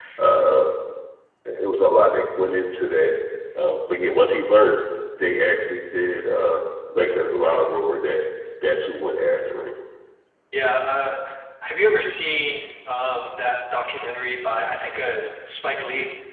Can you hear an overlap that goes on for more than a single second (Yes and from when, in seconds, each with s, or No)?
No